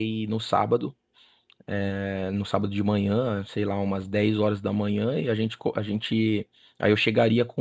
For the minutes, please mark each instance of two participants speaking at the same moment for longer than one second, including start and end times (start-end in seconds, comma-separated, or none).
none